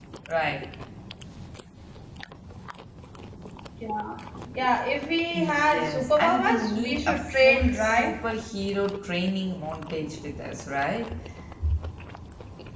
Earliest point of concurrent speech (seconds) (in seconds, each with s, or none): 5.3 s